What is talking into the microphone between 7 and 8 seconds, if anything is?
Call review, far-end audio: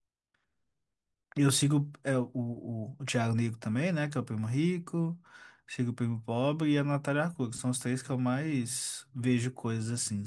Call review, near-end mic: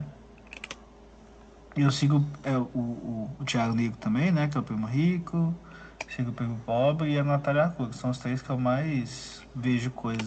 echo only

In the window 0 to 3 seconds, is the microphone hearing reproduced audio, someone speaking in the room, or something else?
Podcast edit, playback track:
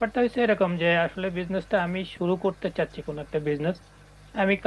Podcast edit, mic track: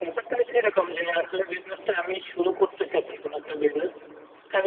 echo only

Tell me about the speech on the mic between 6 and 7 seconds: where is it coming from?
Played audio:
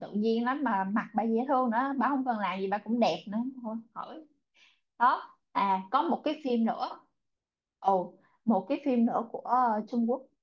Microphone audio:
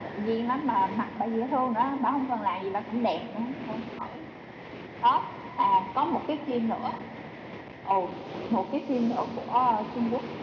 echo only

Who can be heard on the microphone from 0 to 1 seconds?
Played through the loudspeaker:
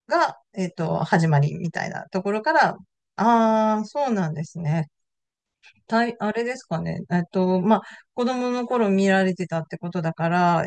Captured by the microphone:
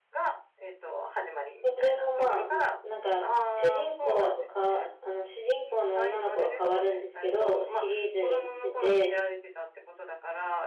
echo only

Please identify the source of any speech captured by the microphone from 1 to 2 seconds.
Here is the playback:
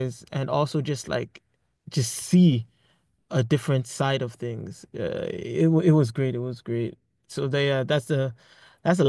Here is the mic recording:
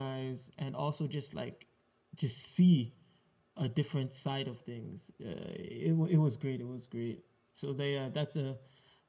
echo only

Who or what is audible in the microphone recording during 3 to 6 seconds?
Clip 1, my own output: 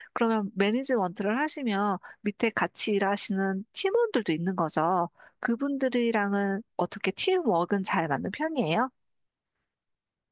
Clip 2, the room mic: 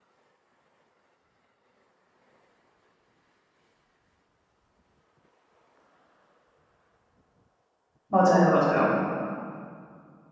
neither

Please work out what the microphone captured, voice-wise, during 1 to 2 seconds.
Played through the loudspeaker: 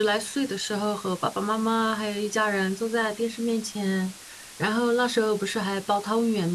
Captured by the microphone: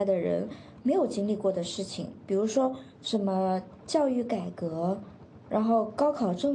user only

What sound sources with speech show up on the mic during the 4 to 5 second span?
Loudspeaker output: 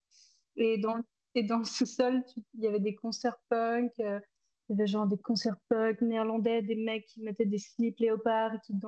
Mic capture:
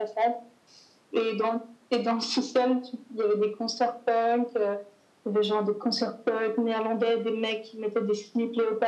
echo only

